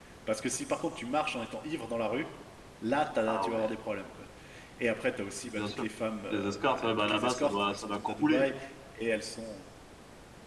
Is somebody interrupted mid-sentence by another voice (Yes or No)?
Yes